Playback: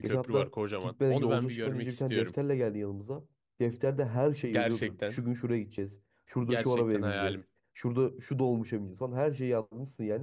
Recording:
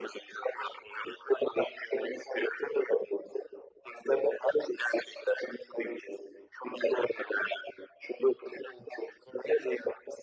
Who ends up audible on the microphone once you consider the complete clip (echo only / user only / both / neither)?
echo only